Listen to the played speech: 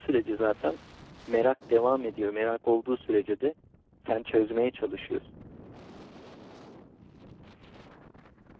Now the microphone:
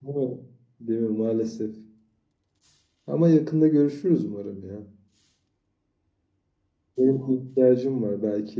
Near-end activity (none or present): present